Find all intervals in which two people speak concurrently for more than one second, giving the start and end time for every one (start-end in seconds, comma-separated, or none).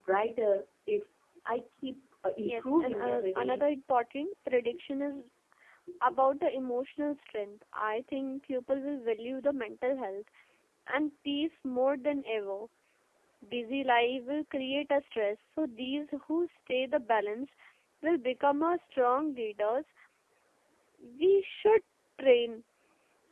2.4-3.6